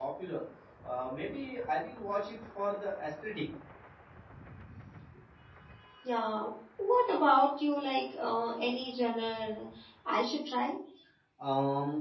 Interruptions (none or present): none